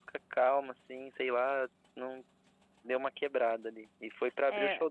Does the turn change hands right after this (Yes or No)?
Yes